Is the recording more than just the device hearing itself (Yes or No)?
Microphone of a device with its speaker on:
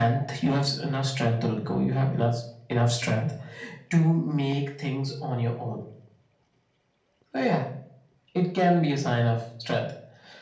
No